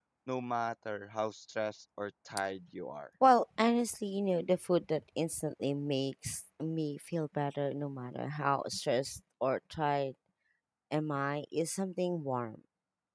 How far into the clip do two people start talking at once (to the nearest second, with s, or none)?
none